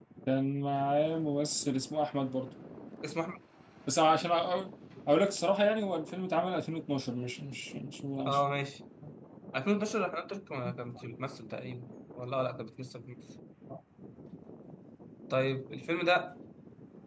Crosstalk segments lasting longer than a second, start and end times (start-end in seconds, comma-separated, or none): none